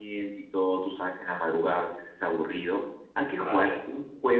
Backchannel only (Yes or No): Yes